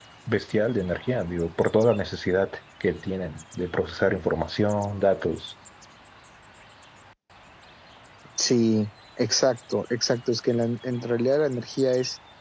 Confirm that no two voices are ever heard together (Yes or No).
Yes